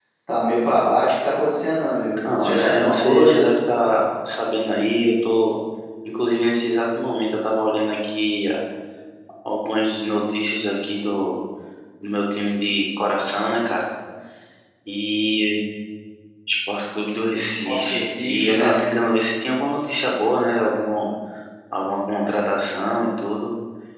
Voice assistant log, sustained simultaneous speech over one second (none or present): present